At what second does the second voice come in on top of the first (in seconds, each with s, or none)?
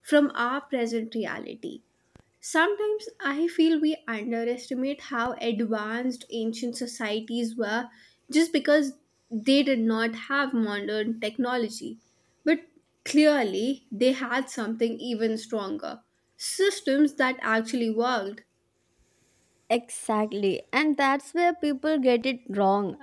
none